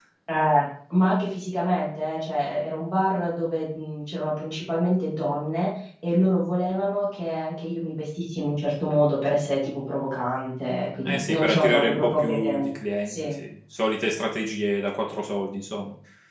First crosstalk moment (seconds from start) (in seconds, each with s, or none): 11.0 s